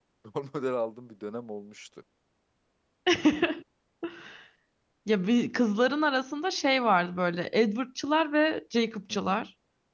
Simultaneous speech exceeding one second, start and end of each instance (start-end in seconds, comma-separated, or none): none